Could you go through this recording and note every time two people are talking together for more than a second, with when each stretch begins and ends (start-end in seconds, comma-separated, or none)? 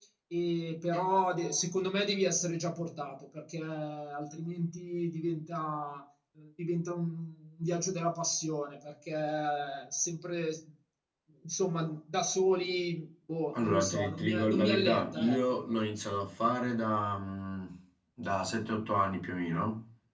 13.5-15.6